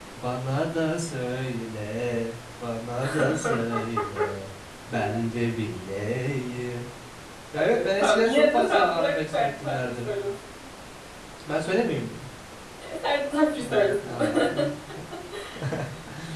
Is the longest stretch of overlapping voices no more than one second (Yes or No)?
No